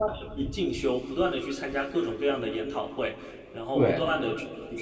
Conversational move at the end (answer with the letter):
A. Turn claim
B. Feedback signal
B